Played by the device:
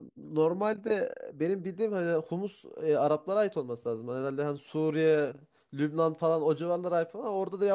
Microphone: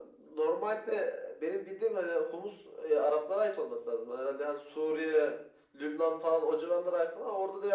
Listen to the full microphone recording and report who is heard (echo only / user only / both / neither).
echo only